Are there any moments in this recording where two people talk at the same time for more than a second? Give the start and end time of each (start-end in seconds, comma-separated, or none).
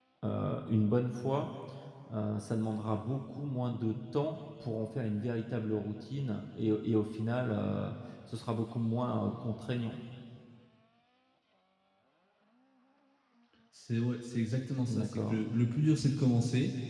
none